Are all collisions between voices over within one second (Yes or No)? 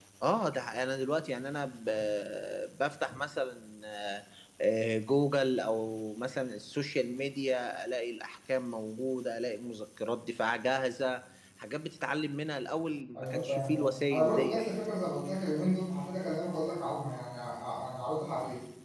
No